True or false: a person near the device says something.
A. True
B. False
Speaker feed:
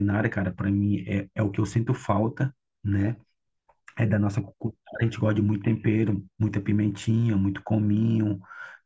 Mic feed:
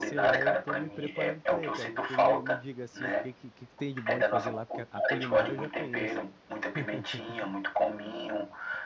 A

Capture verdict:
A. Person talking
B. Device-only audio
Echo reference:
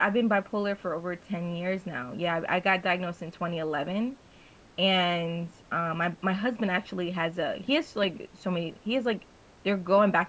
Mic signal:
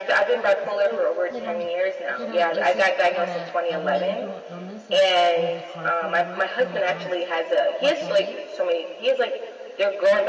A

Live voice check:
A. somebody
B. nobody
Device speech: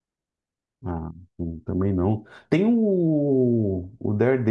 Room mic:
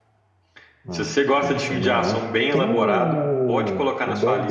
A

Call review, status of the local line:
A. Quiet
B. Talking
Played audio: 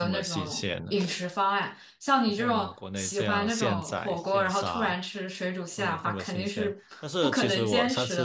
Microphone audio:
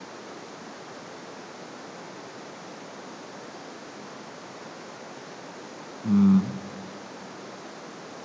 B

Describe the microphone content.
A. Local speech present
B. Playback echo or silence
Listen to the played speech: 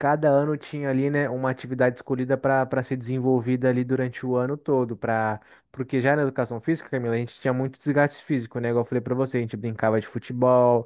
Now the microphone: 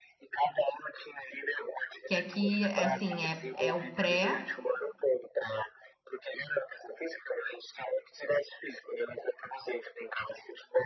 A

